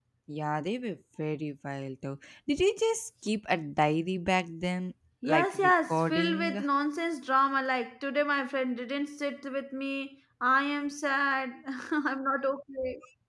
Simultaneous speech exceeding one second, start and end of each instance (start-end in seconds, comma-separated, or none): 5.2-6.6